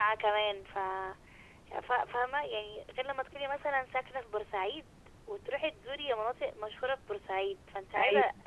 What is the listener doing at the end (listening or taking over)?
listening